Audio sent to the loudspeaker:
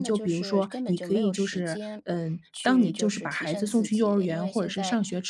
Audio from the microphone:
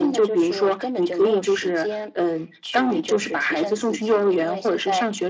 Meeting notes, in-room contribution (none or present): none